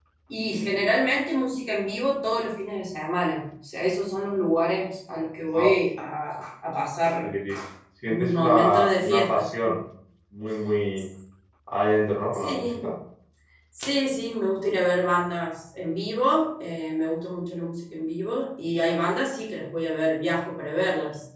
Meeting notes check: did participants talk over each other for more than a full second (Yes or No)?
Yes